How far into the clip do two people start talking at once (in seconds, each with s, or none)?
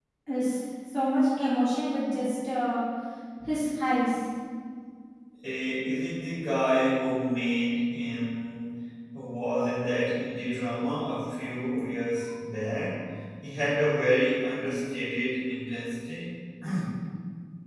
none